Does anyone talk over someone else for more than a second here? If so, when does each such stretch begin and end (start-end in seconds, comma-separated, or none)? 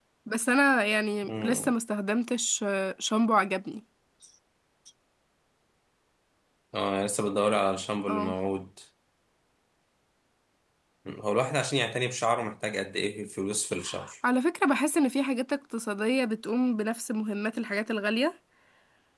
none